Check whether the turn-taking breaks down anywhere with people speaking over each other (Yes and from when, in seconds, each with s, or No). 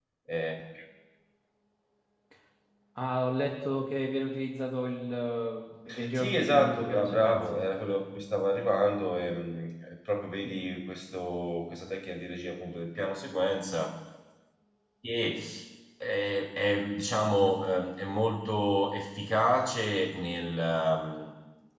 Yes, from 6.1 s